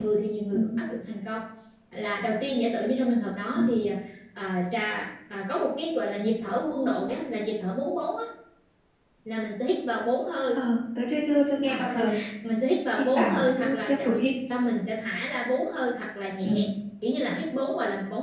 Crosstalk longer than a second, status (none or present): present